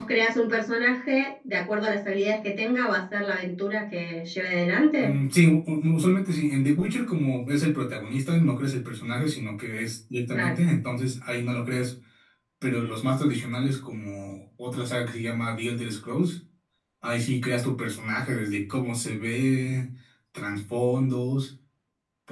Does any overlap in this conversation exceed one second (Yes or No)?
No